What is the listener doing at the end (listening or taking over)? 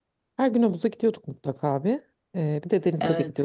listening